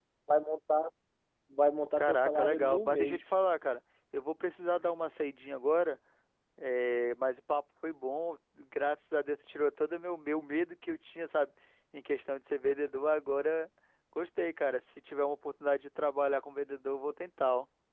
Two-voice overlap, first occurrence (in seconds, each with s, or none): 2.0 s